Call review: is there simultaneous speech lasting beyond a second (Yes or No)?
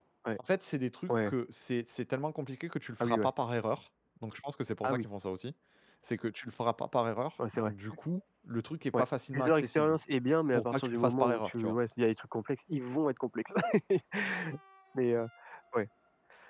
Yes